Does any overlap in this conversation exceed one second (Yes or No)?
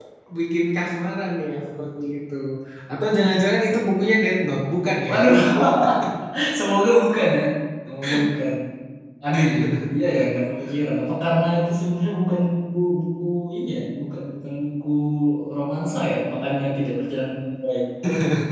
No